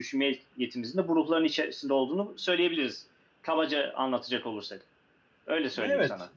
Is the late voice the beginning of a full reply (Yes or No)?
Yes